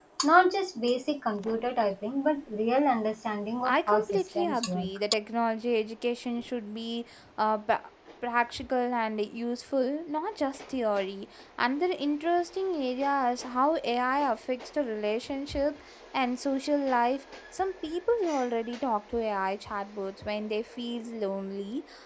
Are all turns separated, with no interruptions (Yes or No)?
No